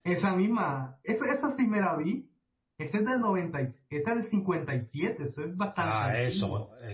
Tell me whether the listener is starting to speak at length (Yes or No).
Yes